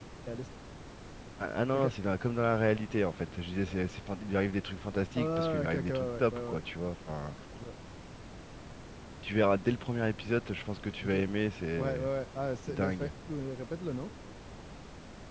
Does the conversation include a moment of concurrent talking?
Yes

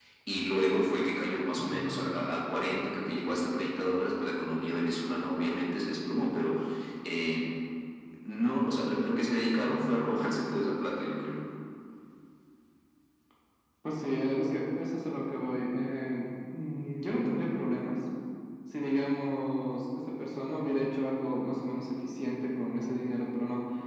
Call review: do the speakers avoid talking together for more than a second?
Yes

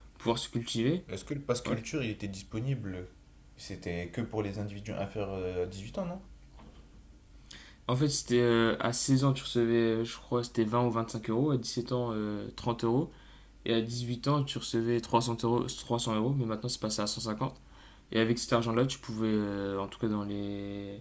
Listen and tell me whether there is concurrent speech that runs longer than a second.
No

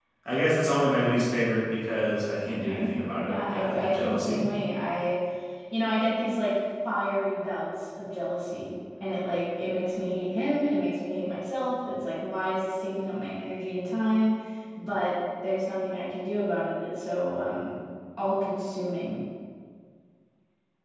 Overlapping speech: Yes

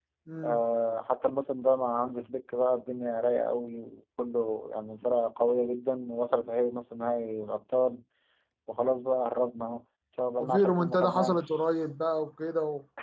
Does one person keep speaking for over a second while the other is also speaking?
Yes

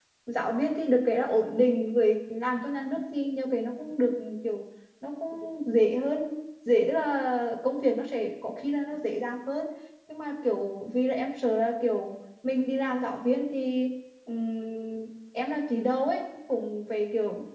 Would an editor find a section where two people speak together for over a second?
No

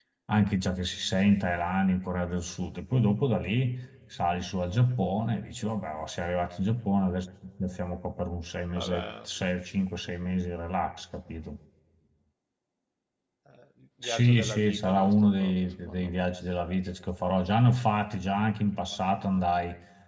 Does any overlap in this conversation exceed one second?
Yes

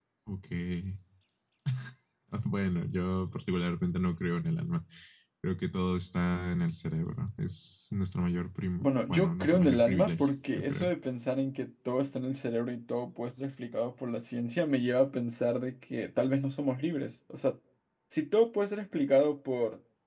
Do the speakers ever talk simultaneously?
Yes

